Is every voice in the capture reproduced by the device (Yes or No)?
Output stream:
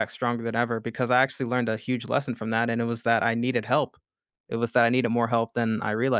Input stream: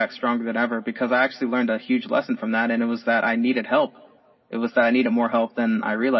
Yes